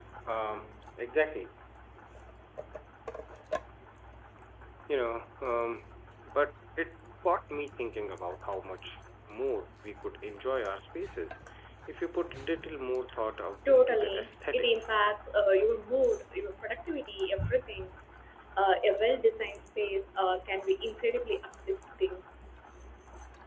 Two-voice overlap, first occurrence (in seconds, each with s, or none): 13.7 s